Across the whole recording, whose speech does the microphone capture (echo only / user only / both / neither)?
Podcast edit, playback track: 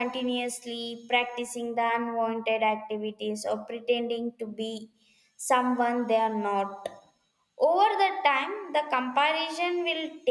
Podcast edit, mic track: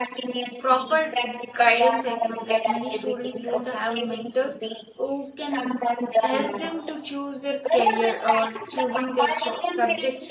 both